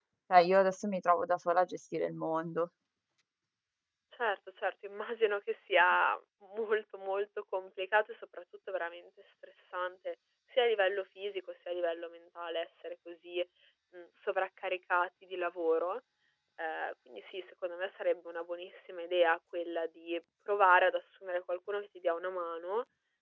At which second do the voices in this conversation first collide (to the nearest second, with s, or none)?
none